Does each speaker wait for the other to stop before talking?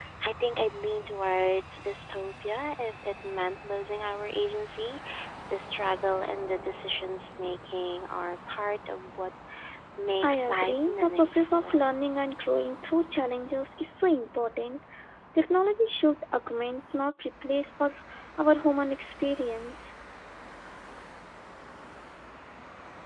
No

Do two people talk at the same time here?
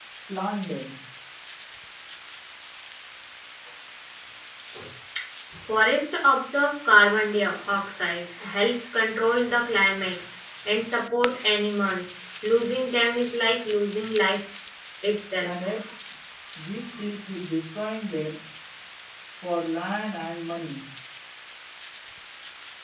No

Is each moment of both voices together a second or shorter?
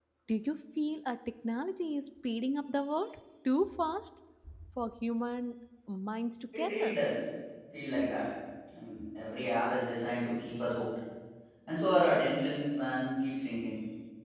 Yes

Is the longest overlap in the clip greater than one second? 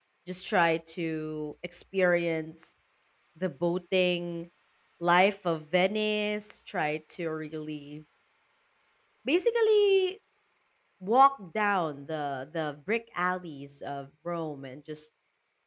No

